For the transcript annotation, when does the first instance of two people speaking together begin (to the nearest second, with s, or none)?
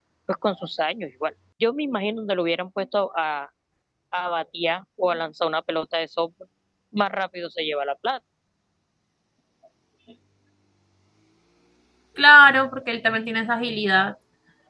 none